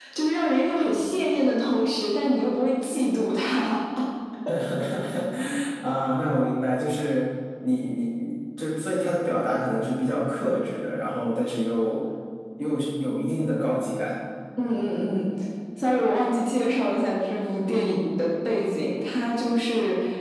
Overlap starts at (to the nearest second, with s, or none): none